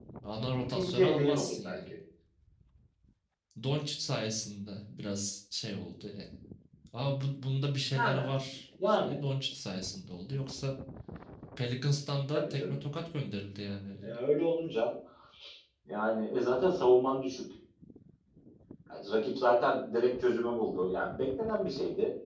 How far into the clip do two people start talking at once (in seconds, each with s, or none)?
0.7 s